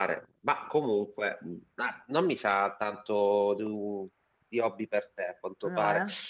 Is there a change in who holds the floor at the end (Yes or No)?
No